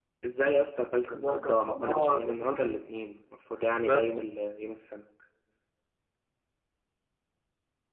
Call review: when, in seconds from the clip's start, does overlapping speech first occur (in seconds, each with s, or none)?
1.1 s